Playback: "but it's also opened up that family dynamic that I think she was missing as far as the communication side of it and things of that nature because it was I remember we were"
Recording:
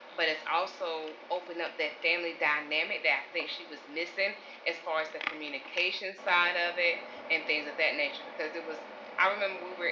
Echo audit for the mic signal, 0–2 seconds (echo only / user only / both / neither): echo only